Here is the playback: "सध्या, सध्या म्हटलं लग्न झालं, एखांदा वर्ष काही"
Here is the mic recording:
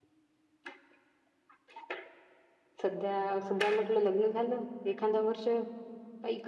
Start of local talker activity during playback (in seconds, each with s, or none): none